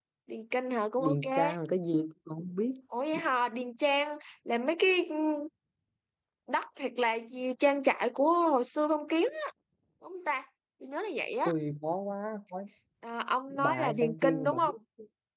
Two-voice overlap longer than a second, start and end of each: 13.5-14.7

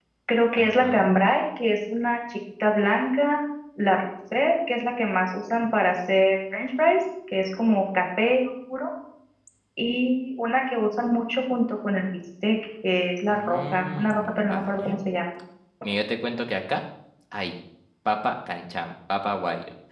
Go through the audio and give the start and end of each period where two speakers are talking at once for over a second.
13.3-15.0

